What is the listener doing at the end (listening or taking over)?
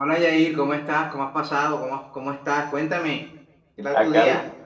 taking over